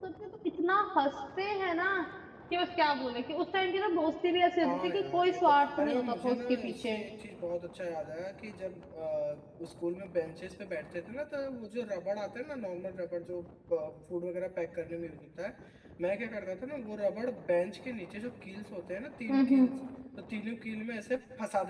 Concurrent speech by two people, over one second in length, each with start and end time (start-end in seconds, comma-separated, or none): 4.6-7.0